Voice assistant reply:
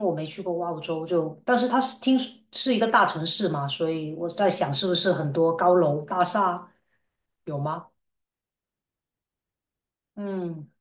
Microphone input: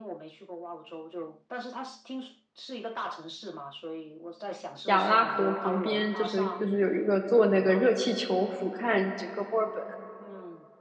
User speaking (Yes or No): Yes